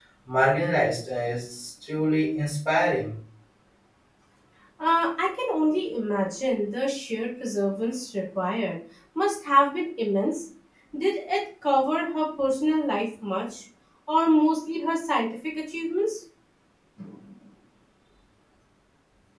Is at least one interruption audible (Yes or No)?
No